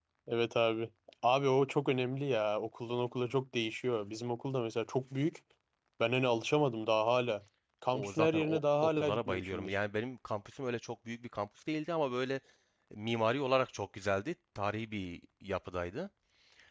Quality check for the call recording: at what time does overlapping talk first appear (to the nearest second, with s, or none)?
8 s